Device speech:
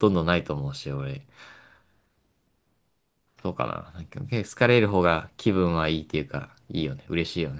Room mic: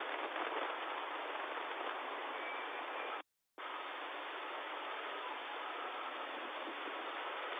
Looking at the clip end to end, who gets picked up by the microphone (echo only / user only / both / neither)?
neither